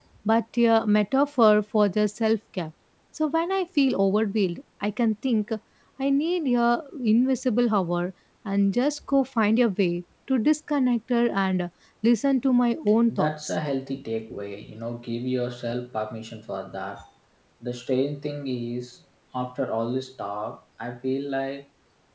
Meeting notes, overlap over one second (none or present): none